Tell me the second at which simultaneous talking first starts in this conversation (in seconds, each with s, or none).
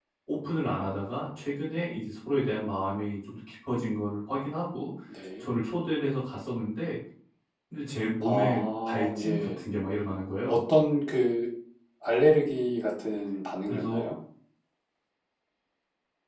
8.2 s